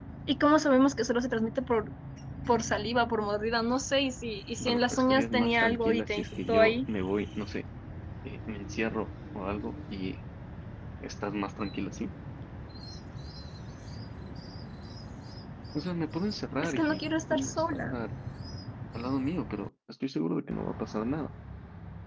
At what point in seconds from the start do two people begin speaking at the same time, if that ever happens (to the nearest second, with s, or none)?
5 s